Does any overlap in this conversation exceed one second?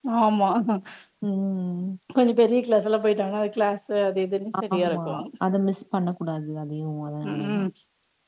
No

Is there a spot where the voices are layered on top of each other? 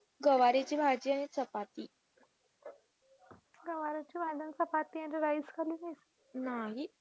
No

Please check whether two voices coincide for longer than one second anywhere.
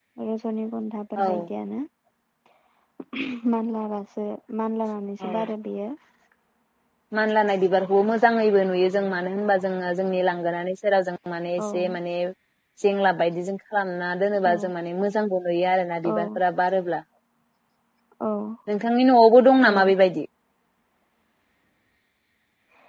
No

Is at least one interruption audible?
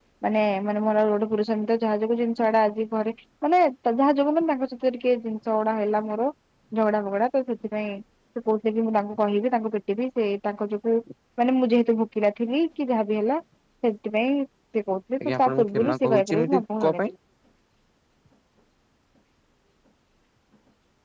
Yes, from 15.2 s

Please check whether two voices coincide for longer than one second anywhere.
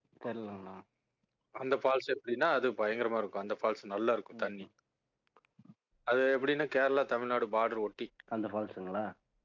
No

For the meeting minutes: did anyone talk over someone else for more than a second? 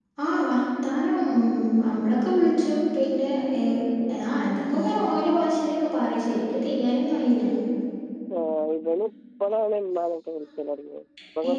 No

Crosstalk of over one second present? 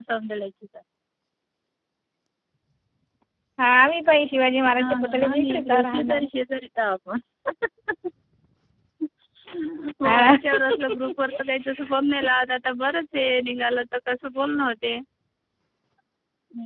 Yes, from 4.8 s

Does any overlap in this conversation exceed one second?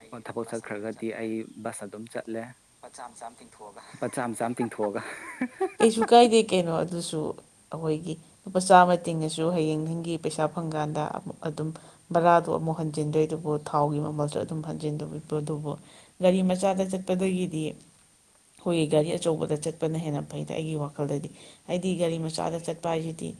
No

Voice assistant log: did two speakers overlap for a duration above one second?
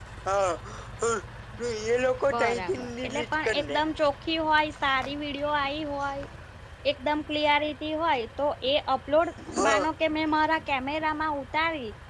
Yes, from 2.3 s

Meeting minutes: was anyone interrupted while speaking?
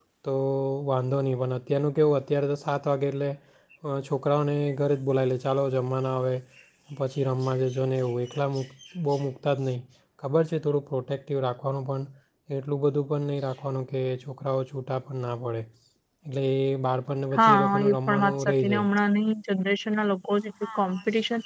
Yes, from 17.3 s

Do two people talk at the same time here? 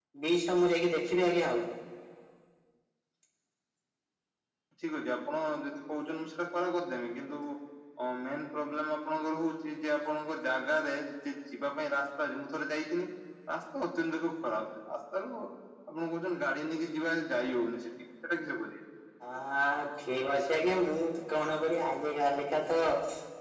No

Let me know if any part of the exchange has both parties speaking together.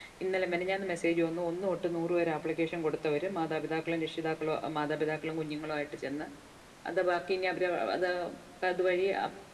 No

